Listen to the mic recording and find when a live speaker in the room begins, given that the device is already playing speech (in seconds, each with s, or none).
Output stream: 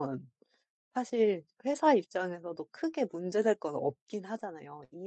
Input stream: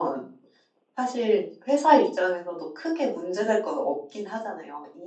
none